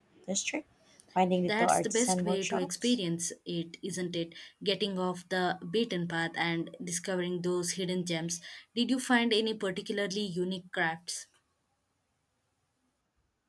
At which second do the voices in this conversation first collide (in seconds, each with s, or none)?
1.4 s